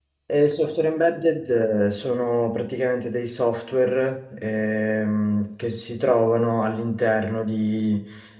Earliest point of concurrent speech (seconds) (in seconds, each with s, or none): none